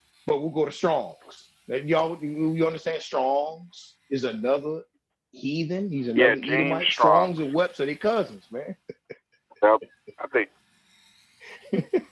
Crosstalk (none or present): present